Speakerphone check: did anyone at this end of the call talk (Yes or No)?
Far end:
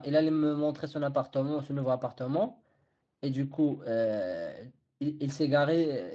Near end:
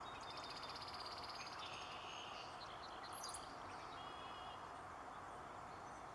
No